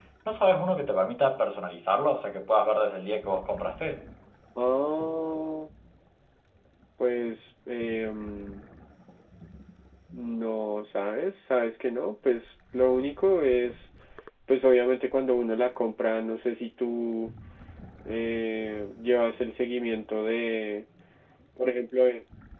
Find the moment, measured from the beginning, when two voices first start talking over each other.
none

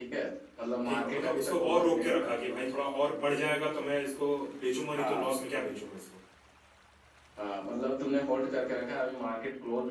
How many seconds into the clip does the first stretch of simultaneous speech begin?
1 s

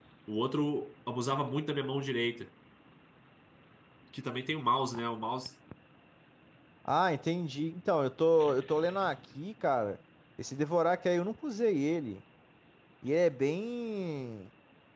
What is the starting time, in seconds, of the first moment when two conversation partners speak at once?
none

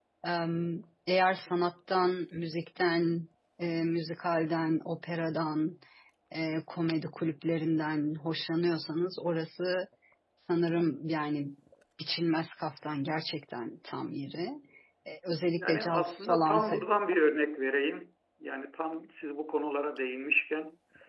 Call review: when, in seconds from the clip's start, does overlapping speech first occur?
16 s

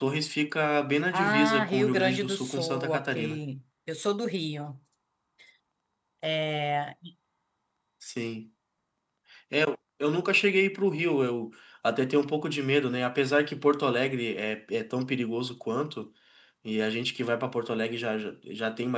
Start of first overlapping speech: 1 s

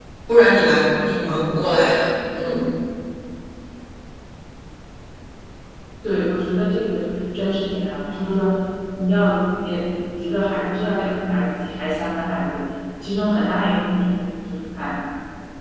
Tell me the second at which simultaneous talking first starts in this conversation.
none

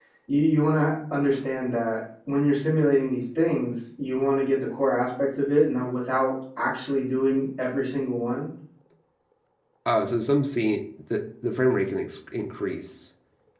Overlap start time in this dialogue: none

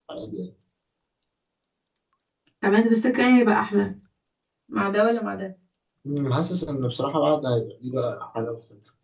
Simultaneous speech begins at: none

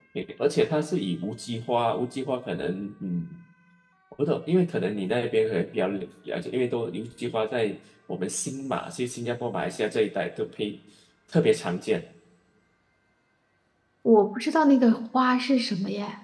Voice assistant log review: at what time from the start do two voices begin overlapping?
none

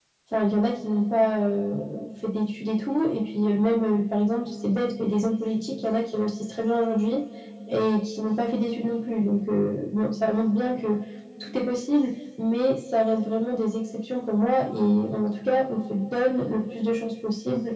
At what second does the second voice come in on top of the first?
none

